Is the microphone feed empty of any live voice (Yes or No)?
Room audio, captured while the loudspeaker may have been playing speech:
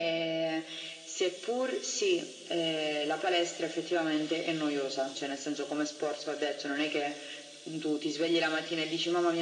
Yes